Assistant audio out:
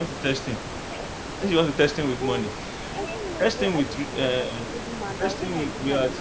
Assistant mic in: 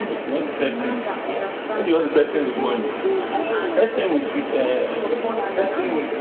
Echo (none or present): present